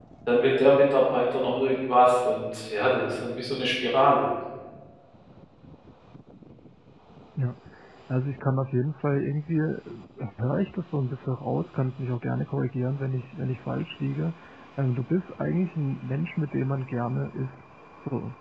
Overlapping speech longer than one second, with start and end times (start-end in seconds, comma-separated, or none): none